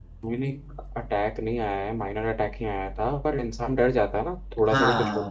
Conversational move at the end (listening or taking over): listening